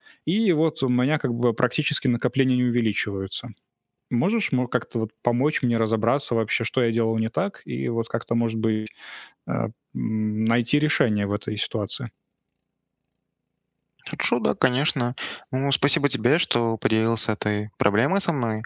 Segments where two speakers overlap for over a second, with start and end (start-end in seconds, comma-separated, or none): none